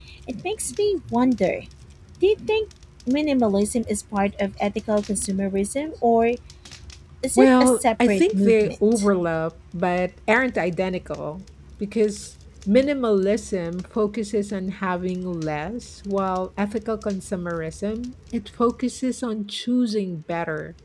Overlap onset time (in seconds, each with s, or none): 7.4 s